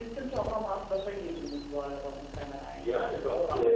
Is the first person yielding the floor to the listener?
Yes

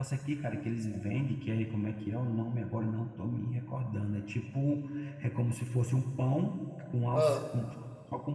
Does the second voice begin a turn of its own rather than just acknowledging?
No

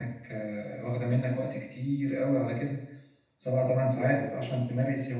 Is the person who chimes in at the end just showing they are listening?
Yes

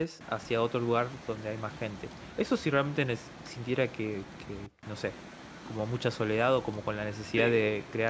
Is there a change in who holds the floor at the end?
No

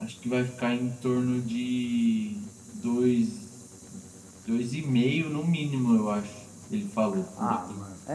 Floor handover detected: Yes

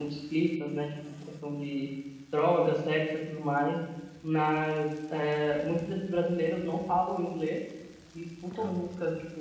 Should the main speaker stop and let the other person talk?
No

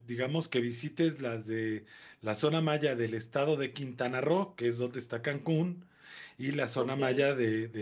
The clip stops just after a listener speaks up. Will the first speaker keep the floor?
Yes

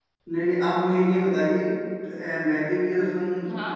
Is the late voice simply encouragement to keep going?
Yes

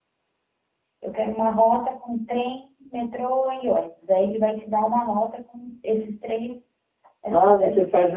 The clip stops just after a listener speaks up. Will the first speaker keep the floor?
No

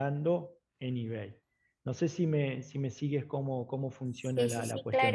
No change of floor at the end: No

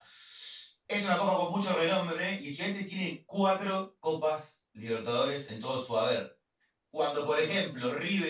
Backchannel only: Yes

